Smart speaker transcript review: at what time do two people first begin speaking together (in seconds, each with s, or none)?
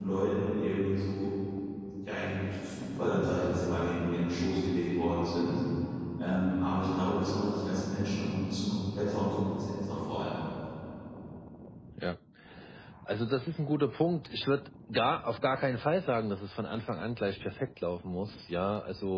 none